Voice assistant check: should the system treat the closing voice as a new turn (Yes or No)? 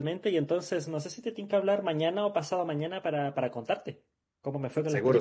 Yes